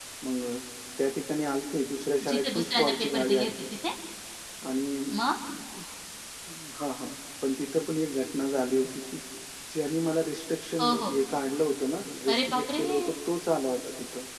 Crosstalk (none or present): present